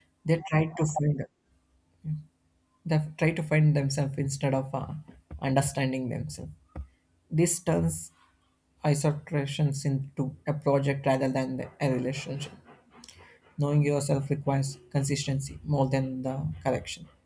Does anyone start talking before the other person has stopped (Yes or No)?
No